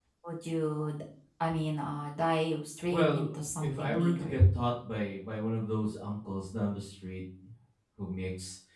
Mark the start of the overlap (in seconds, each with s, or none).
2.9 s